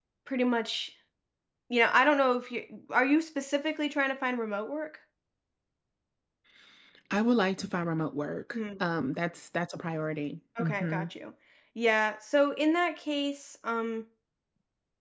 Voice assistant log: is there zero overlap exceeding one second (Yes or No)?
Yes